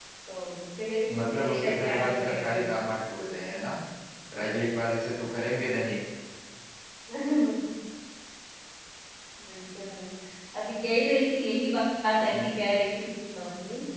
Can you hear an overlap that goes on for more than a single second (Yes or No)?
Yes